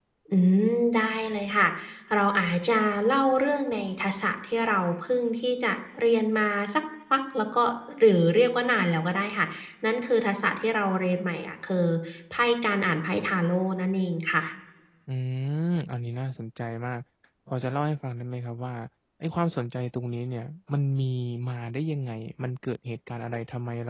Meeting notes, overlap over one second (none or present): none